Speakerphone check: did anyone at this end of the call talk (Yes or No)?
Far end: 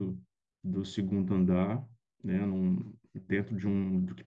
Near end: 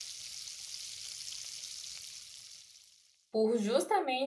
Yes